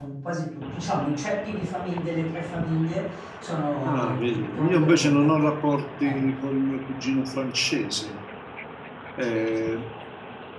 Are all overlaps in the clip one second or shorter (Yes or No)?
No